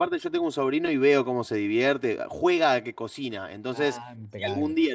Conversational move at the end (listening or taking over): listening